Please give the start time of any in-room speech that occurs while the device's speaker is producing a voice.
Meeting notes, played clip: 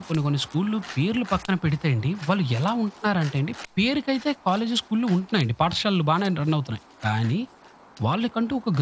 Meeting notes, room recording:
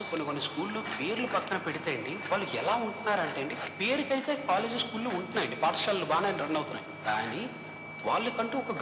none

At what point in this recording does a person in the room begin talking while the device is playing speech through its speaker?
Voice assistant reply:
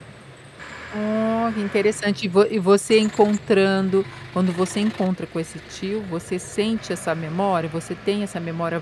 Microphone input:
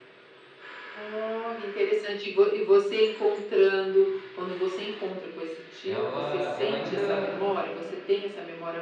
5.8 s

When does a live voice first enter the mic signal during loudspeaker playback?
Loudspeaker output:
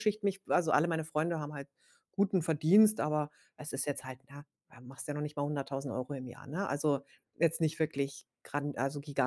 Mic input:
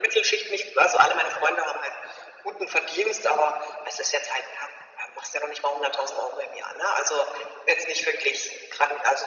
none

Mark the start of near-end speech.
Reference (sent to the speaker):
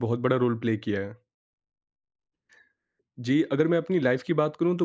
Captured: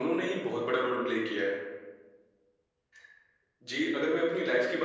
none

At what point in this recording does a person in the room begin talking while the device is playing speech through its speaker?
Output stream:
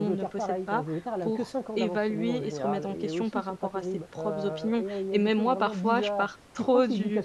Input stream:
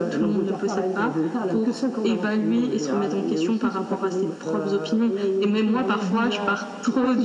none

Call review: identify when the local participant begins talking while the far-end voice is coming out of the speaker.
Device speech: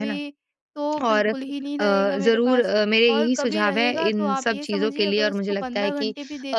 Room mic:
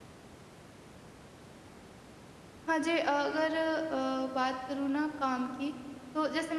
2.7 s

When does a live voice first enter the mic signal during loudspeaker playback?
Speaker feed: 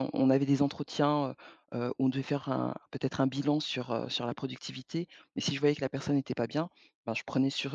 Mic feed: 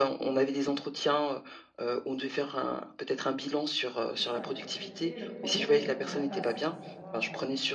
4.2 s

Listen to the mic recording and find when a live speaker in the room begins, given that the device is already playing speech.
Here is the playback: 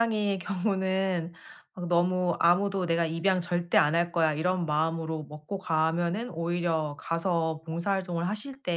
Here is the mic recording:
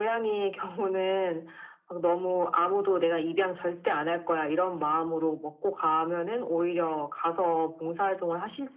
none

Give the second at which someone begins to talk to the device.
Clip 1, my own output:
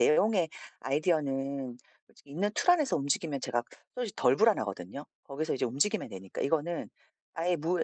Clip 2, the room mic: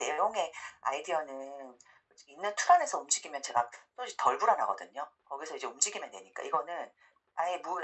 none

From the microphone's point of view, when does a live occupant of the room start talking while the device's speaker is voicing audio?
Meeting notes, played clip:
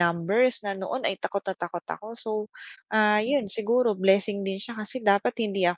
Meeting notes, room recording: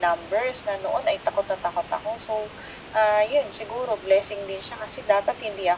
none

